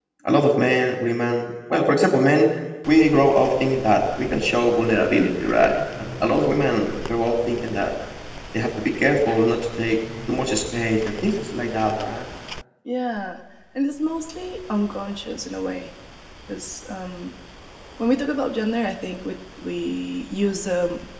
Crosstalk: none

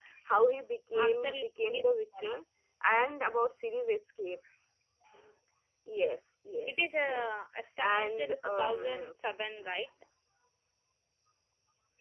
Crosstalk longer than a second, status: present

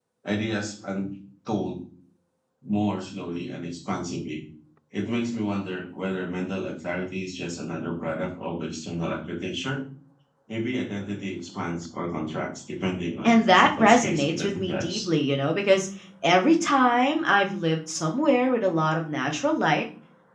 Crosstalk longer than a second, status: present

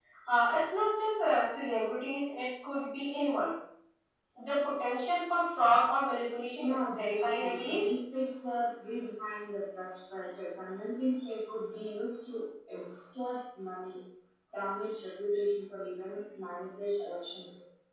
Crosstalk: present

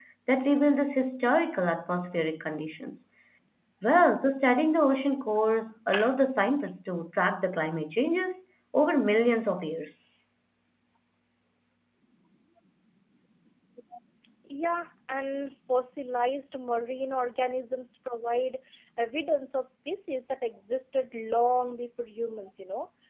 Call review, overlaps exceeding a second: none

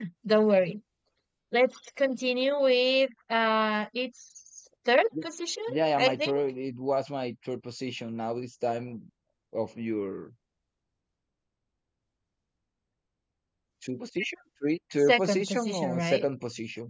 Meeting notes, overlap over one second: present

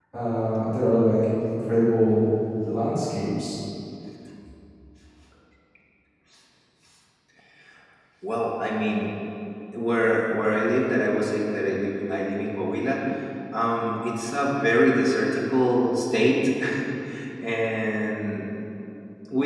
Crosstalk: none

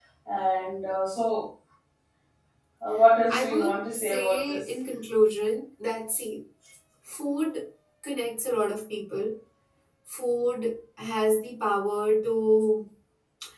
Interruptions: present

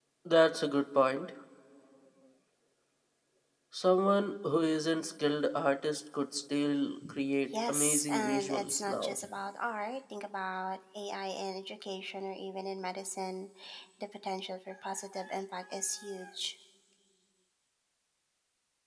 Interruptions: present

